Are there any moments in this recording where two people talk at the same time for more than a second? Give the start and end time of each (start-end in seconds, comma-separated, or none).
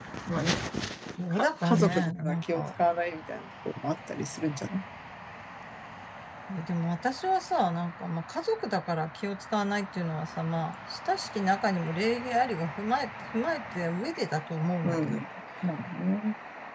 1.3-2.6